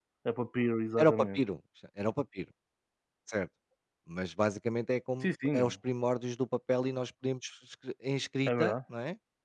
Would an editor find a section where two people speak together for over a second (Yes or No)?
No